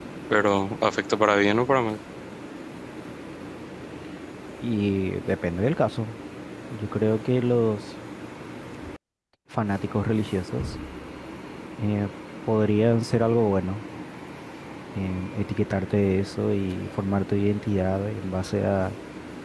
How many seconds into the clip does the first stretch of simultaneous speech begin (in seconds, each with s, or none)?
none